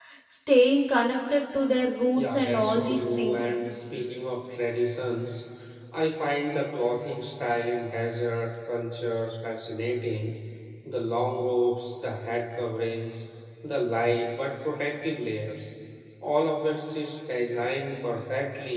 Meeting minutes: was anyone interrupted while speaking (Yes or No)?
Yes